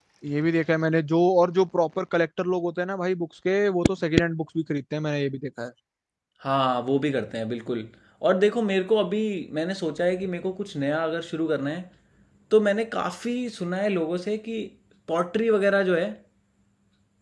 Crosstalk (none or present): none